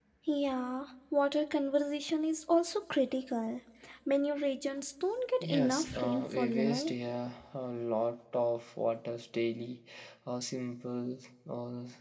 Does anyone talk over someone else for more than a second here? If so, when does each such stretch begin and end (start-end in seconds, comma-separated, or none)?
5.5-6.9